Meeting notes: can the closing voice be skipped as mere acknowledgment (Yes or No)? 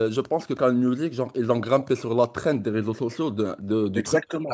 No